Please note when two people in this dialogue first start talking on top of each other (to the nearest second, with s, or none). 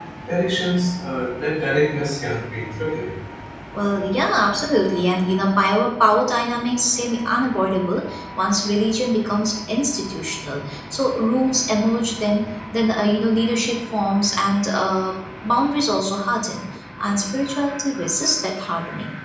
none